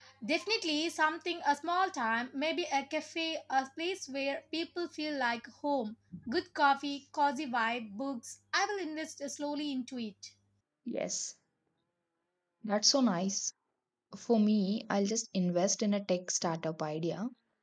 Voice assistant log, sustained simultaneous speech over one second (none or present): none